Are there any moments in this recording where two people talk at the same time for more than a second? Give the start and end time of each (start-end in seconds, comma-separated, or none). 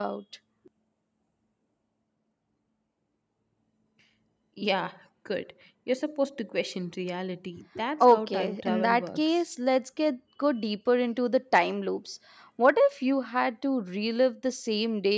8.0-9.4